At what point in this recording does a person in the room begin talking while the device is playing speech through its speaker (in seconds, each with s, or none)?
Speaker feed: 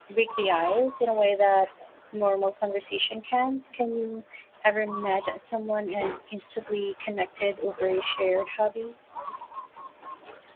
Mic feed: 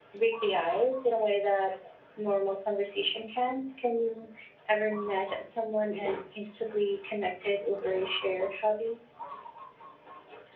none